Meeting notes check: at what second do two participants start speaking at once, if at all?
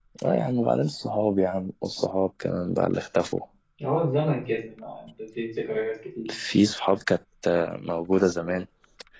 none

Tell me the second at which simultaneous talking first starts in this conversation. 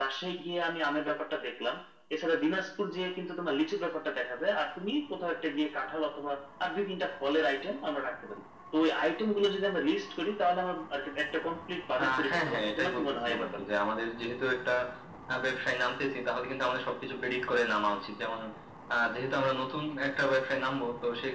12 s

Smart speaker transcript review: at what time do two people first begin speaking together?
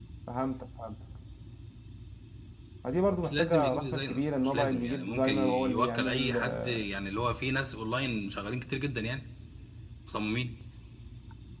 3 s

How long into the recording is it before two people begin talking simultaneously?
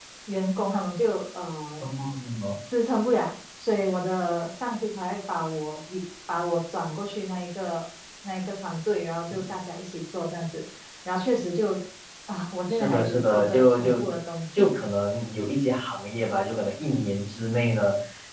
13 s

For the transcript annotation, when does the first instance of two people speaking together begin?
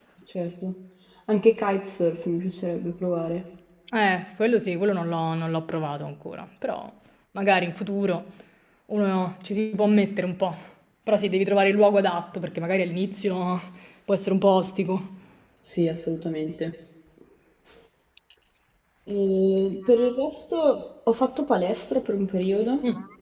none

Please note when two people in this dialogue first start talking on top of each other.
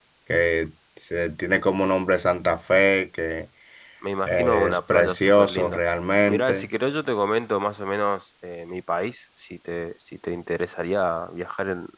4 s

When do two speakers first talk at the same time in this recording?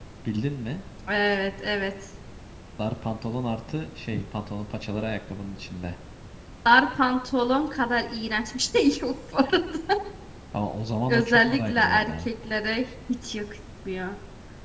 11 s

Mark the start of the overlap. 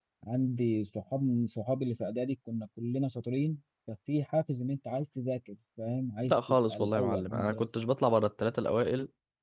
6 s

